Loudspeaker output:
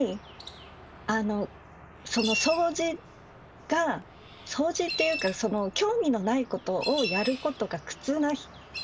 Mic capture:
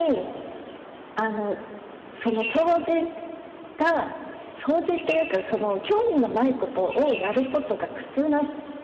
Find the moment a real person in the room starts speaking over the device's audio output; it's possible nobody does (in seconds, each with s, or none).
none